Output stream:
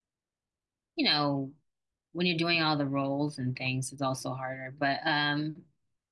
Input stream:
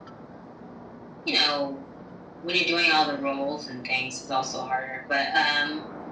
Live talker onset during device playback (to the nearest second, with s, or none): none